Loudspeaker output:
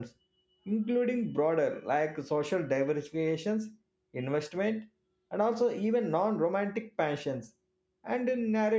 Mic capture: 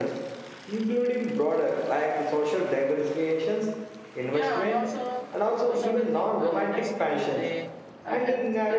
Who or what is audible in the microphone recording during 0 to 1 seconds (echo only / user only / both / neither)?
echo only